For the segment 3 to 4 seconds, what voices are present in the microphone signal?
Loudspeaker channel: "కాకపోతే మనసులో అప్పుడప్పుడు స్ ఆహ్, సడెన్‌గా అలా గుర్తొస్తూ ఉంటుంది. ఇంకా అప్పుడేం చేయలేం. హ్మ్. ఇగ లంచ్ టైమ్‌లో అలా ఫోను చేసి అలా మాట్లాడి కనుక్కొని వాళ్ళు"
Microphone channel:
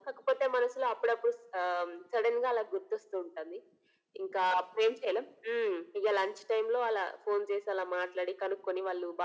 echo only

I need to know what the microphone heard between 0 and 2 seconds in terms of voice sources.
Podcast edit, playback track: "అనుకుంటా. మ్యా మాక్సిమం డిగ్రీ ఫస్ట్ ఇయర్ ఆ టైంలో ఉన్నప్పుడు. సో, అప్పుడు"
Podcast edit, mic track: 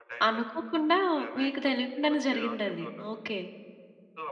both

